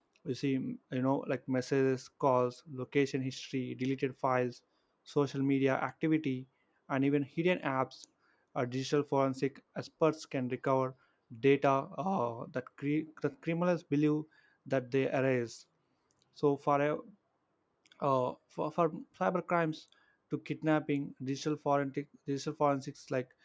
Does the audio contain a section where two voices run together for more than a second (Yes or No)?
No